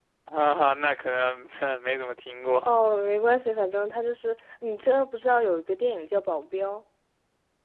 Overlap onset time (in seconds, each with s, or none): none